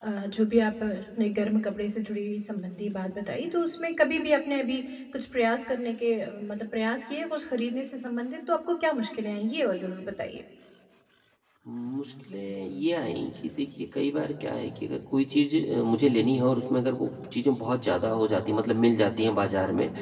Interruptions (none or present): none